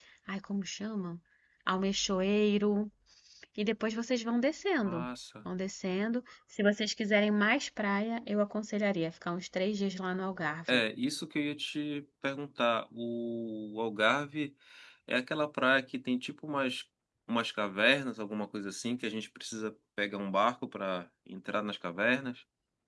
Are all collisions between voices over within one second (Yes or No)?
Yes